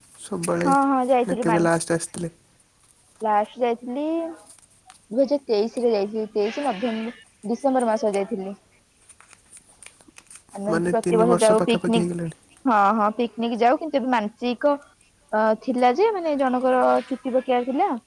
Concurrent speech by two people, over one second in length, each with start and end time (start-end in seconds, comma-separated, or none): 10.7-12.1